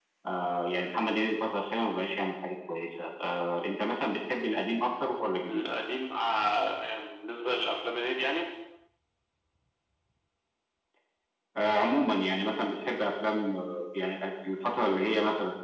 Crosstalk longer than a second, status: none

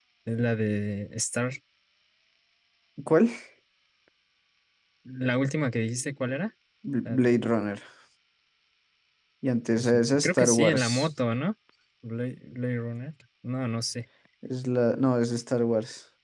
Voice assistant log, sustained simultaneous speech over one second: present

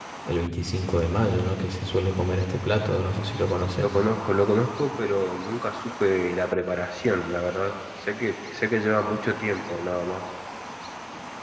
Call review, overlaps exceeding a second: none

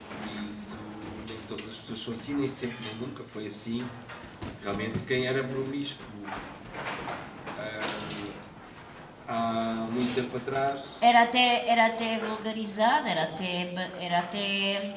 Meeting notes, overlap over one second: none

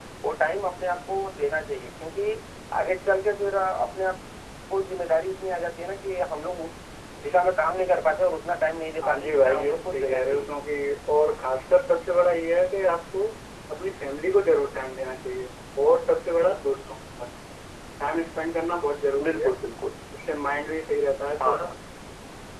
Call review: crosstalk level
present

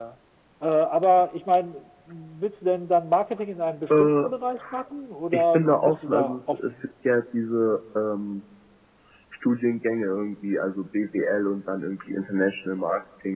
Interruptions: present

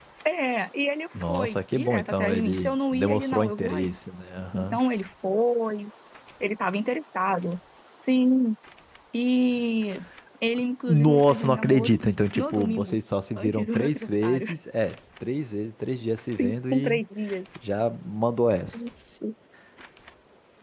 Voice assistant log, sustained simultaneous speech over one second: present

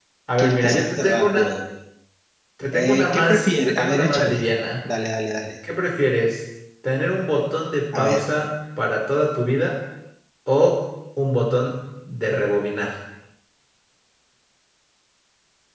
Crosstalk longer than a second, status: present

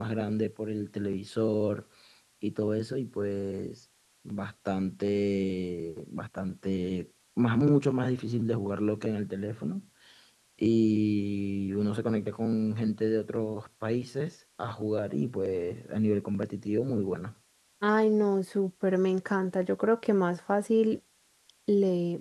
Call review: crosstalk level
none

